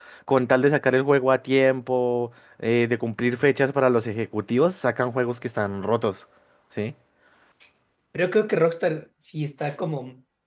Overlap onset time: none

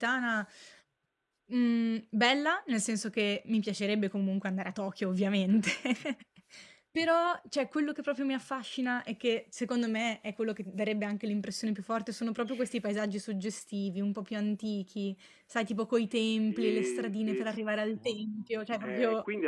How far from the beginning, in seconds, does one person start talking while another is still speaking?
16 s

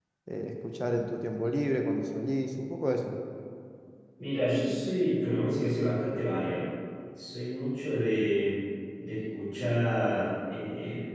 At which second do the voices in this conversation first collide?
none

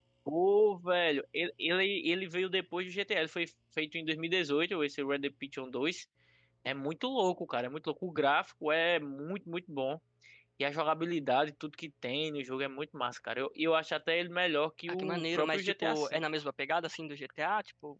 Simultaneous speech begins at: 15 s

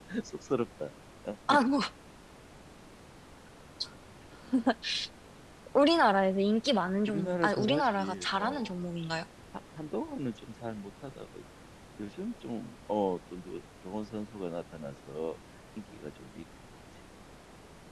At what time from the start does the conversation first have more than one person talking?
7 s

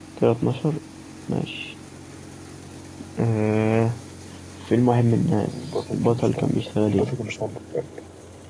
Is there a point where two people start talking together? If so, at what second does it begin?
5 s

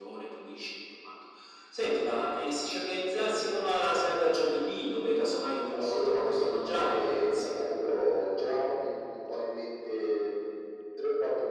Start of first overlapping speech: 6 s

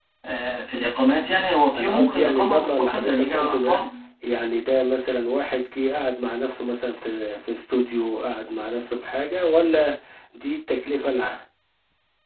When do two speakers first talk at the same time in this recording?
2 s

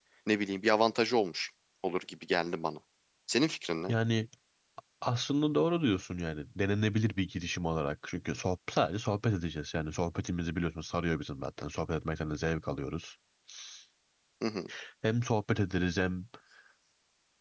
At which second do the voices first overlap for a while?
none

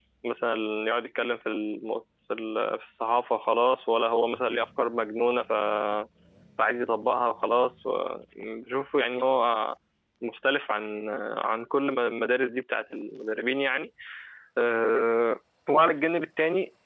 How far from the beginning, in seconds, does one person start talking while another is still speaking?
none

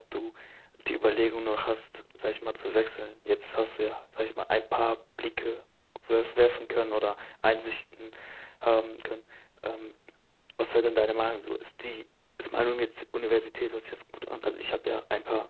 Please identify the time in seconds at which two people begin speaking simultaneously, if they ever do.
none

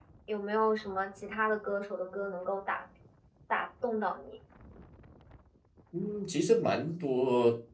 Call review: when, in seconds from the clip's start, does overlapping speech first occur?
none

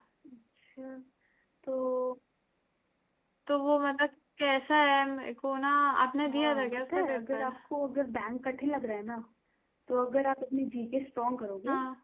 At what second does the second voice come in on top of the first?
6 s

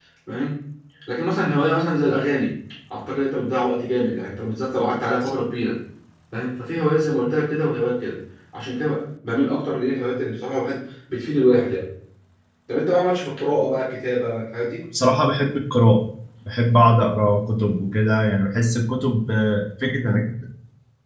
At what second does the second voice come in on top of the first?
none

